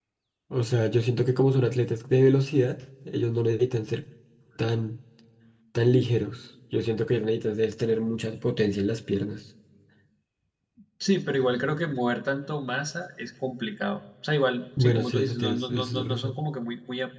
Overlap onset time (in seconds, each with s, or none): 14.8 s